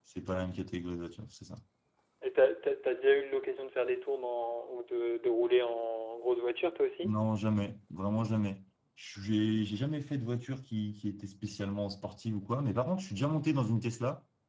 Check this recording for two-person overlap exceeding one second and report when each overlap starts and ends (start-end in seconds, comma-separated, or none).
none